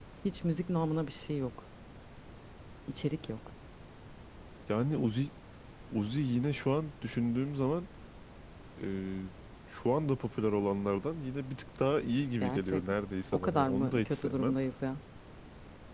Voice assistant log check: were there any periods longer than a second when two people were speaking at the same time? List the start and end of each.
13.3-14.6

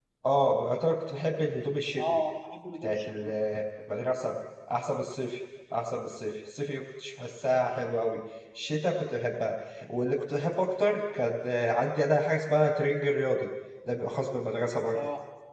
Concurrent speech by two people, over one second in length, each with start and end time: none

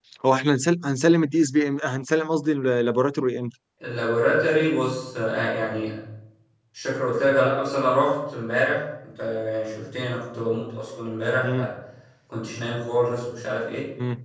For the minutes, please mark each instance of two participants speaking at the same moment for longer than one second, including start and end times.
none

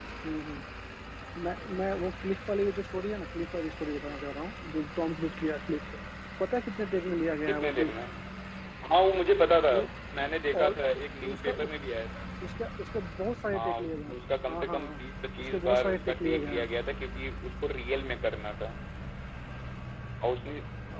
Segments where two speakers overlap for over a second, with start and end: 15.4-16.7

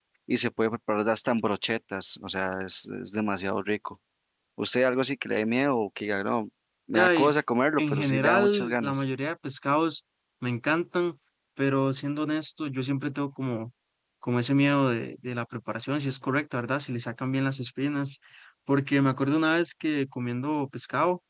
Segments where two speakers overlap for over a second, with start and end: 7.8-9.0

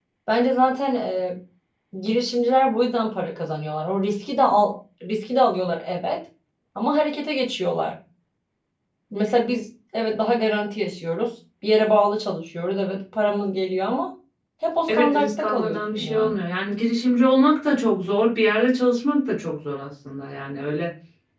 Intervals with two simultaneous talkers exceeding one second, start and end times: 14.9-16.4

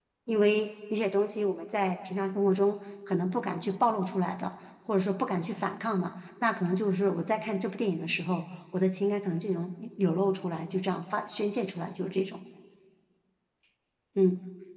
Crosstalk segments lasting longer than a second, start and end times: none

